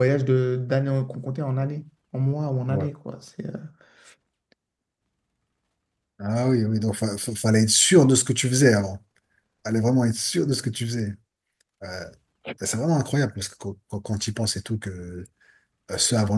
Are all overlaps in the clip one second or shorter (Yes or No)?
Yes